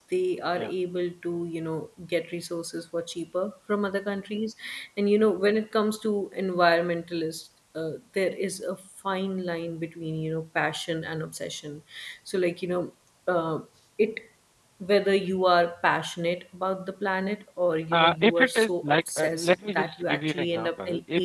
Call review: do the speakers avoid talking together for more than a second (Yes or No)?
No